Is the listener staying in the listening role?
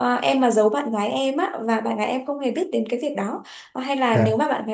Yes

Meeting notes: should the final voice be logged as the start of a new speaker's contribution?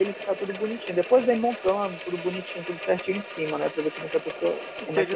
Yes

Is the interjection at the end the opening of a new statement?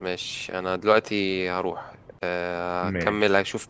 No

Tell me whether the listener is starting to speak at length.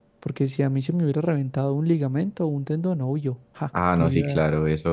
Yes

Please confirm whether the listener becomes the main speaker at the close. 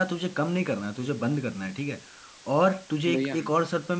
No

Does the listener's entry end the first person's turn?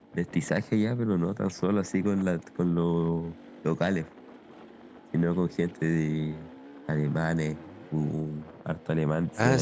Yes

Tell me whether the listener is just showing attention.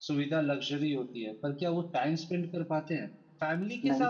Yes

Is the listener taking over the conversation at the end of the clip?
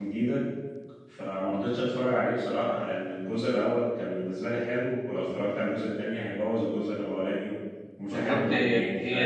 Yes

